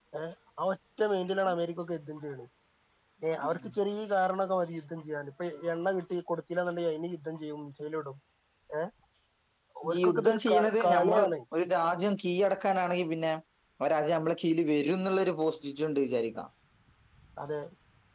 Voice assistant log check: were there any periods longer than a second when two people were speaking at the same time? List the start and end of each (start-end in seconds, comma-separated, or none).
9.9-11.3